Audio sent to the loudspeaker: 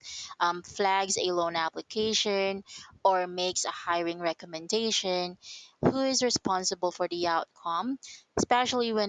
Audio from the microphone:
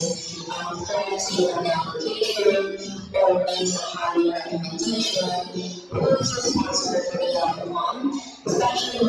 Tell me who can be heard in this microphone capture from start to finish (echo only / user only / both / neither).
echo only